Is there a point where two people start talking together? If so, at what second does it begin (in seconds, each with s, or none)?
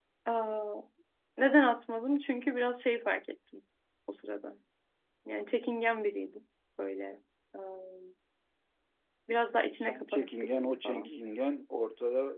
9.9 s